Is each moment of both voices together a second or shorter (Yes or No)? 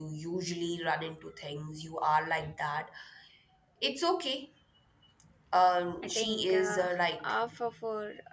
No